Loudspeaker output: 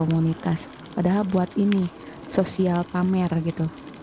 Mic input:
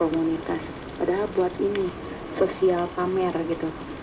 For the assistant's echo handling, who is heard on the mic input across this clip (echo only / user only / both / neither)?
echo only